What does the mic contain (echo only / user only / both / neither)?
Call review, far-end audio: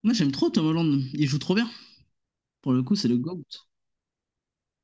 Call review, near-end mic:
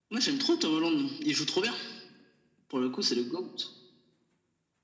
echo only